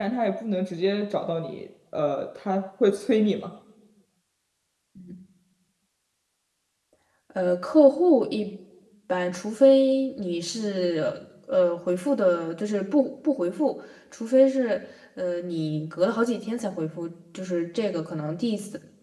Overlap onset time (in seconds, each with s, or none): none